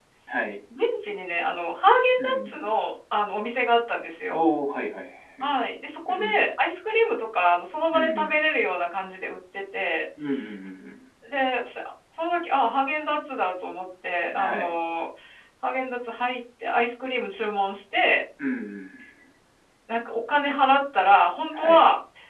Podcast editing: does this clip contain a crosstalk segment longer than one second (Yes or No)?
No